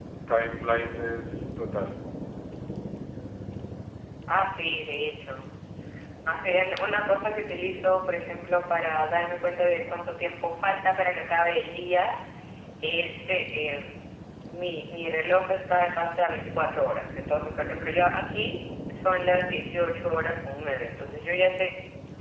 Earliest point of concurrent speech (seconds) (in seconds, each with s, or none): none